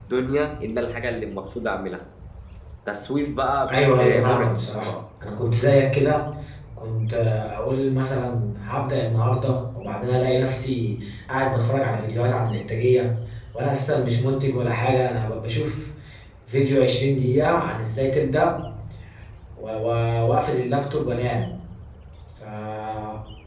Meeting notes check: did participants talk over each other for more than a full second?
Yes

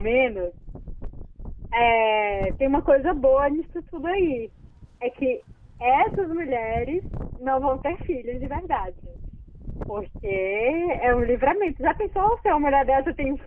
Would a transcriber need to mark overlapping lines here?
No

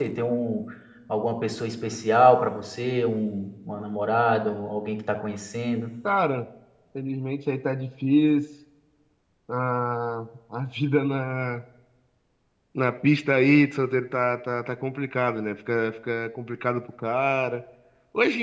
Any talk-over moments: No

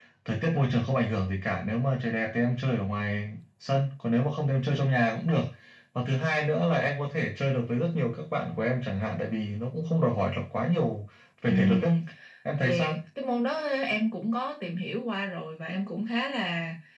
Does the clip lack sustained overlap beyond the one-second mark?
Yes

